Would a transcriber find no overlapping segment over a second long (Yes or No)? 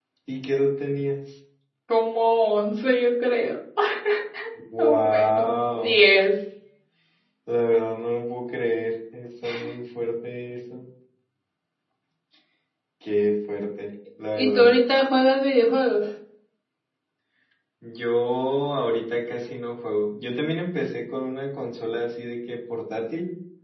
No